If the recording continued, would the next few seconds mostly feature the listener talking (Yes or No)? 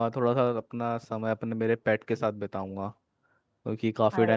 No